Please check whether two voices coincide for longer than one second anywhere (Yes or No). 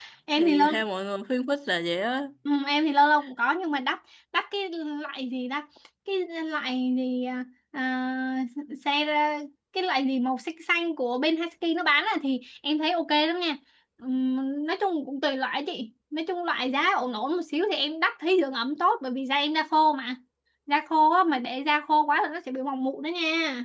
No